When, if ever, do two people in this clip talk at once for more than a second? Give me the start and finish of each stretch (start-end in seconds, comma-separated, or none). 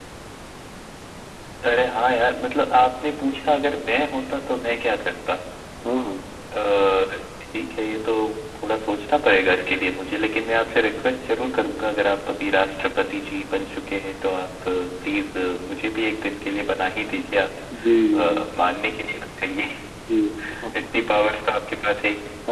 none